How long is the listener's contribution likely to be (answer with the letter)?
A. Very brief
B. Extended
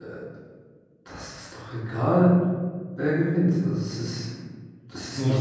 A